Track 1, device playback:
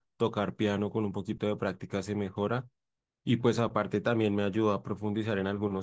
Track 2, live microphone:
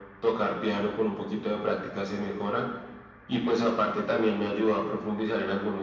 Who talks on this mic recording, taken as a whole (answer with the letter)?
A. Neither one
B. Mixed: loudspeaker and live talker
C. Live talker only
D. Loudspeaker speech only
D